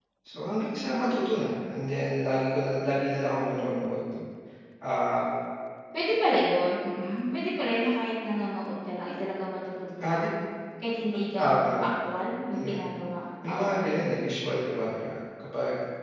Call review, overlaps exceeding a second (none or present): none